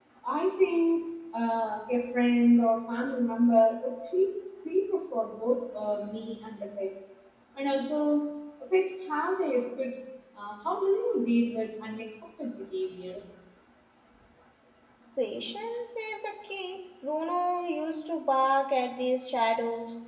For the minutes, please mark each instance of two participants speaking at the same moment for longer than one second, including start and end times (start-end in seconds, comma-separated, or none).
none